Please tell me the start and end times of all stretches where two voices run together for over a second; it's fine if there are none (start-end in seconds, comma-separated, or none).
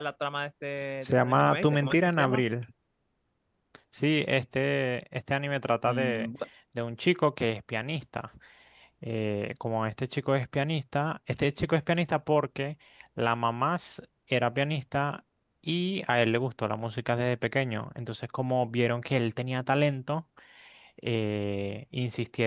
1.1-2.4